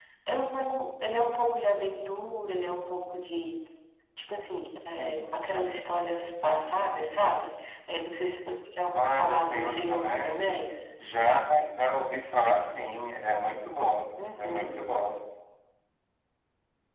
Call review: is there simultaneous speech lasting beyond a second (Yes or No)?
Yes